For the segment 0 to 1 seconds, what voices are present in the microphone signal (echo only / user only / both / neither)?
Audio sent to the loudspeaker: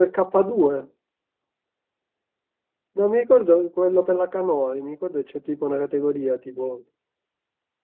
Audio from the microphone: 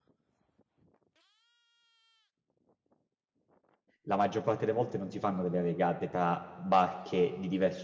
neither